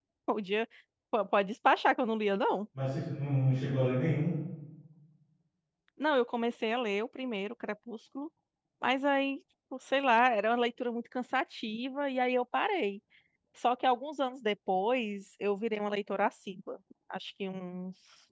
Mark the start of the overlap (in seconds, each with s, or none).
none